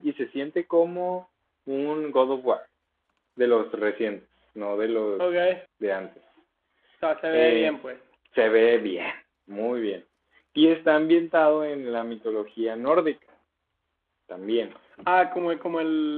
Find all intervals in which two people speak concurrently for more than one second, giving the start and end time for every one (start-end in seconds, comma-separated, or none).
none